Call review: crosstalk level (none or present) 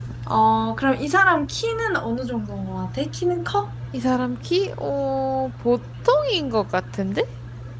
none